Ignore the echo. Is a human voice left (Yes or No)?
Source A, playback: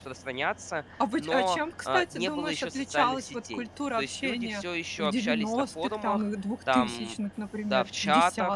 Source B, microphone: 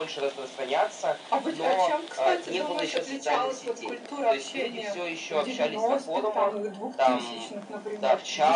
No